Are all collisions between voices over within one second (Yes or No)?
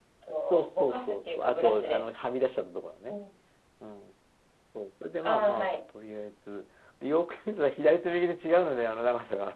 No